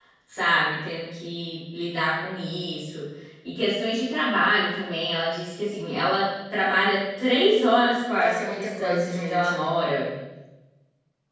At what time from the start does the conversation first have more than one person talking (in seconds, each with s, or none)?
8.2 s